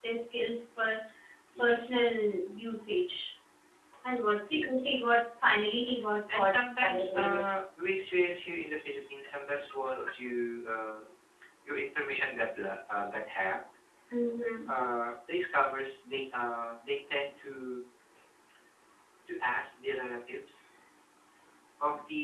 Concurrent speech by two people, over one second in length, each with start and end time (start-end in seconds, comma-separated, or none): 6.3-7.6